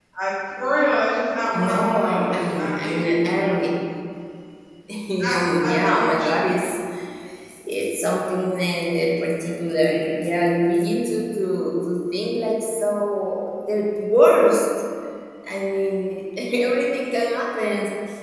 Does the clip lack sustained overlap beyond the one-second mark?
No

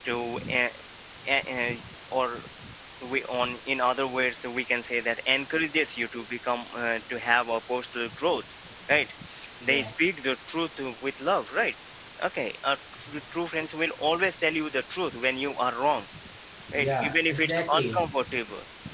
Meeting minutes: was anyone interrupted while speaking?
Yes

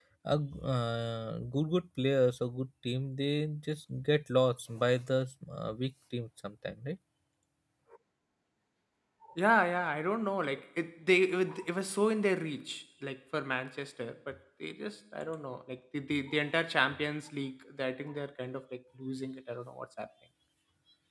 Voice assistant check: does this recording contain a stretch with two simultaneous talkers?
No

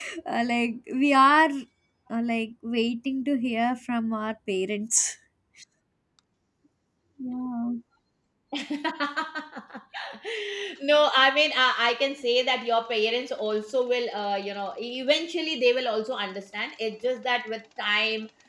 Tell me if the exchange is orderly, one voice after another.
Yes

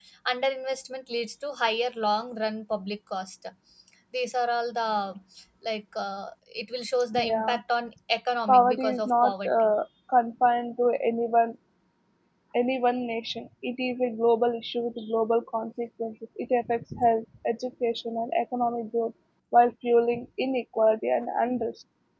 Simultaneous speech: Yes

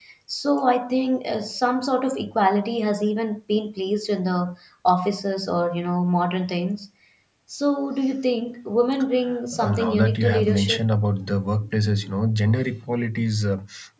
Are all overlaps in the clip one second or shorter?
No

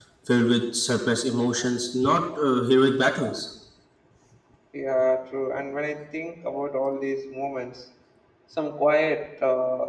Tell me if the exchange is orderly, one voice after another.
Yes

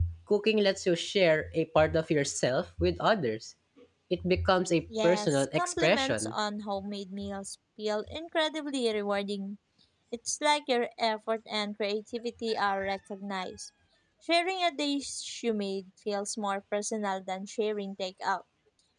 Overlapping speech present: Yes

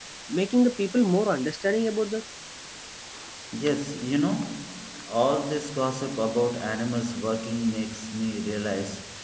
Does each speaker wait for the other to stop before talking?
Yes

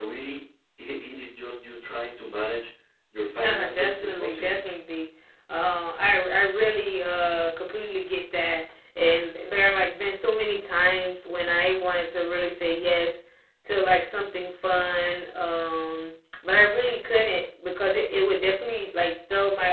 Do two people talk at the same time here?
Yes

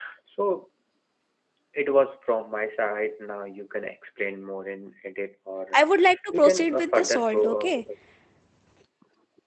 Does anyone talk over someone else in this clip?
Yes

